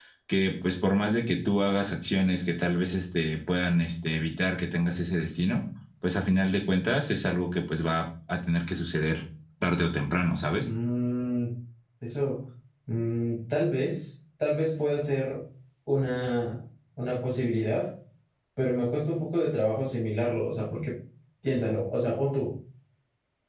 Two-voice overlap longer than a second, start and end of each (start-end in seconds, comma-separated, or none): none